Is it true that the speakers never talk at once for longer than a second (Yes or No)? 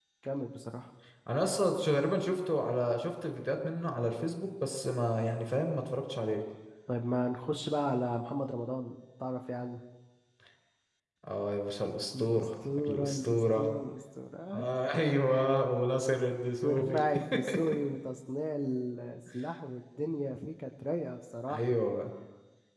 No